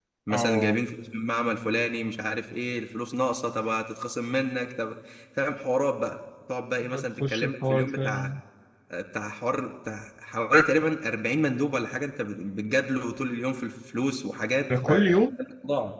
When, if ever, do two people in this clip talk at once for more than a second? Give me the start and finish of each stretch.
6.9-8.3

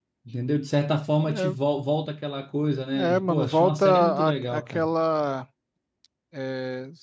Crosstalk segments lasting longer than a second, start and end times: 2.9-4.9

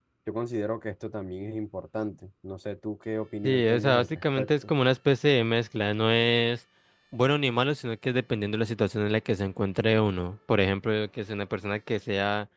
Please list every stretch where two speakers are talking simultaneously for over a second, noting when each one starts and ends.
3.4-4.7

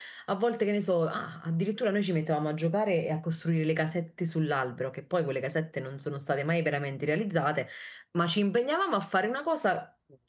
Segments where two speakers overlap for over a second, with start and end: none

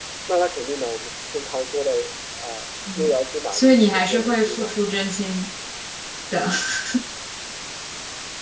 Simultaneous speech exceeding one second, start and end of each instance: 3.5-4.8

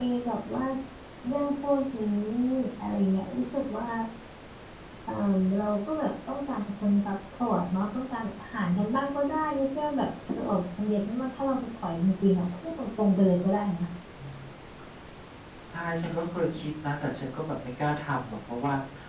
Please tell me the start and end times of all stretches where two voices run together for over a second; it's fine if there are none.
none

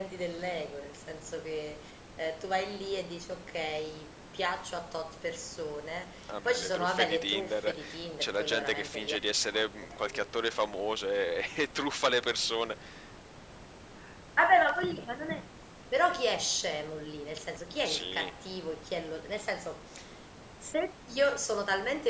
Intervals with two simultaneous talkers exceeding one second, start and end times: 6.3-7.7, 8.2-10.2

